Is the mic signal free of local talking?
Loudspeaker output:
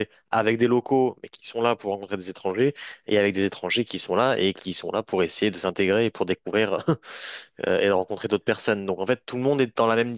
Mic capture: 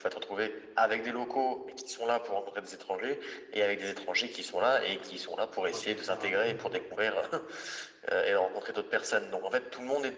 No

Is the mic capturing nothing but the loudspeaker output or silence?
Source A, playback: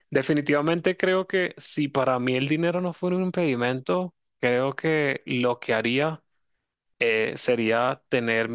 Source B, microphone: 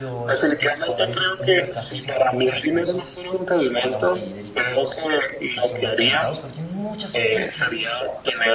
No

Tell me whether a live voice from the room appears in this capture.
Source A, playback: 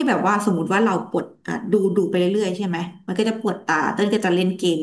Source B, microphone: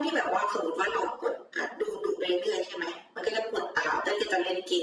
No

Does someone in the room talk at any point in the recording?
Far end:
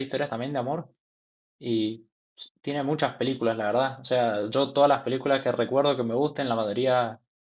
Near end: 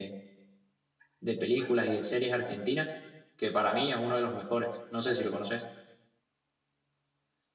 Yes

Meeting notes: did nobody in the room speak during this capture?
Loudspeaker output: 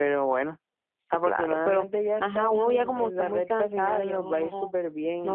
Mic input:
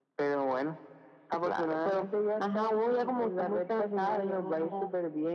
Yes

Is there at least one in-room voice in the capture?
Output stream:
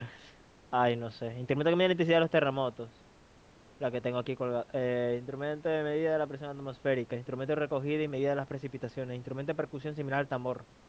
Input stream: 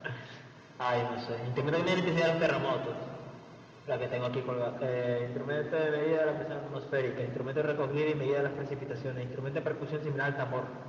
No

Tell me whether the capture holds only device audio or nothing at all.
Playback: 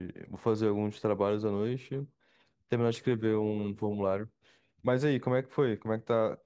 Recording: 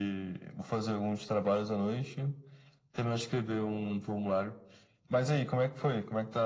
Yes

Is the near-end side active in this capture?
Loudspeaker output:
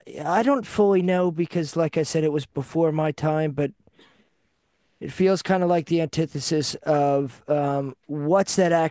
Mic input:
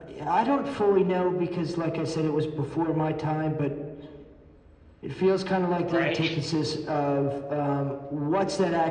Yes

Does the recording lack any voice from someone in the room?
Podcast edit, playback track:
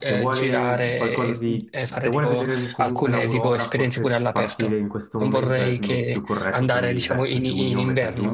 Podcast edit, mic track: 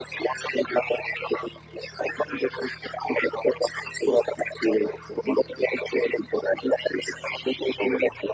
Yes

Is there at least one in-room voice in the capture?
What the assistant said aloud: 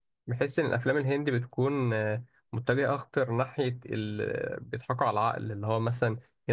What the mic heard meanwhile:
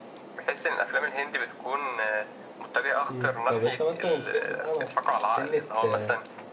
Yes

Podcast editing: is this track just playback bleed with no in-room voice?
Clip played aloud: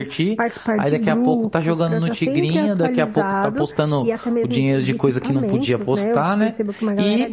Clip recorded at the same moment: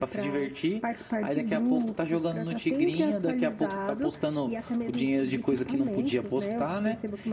Yes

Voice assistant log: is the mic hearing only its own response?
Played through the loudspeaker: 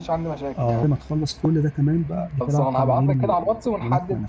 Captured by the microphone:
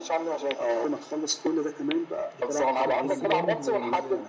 No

